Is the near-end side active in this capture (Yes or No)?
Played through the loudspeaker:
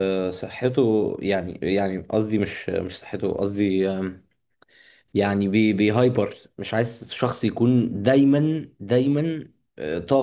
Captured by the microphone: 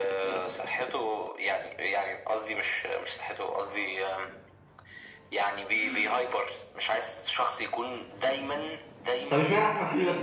Yes